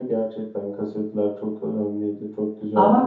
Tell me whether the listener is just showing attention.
No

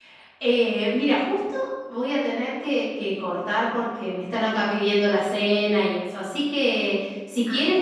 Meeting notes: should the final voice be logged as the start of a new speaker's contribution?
No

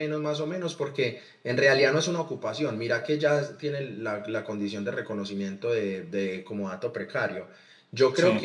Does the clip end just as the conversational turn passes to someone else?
No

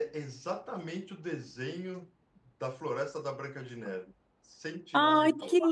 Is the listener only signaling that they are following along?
No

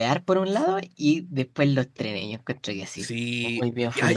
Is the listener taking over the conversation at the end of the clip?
Yes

